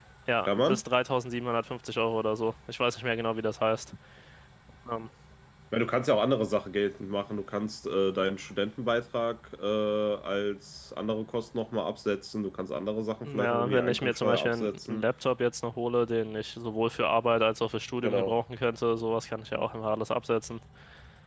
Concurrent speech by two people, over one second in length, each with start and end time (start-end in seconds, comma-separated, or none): 13.2-15.1